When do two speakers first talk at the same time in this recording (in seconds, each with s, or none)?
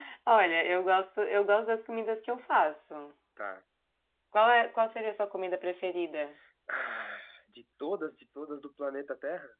none